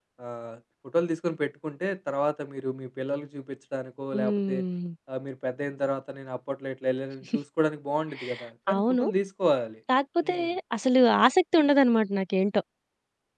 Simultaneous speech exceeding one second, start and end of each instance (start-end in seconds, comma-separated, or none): none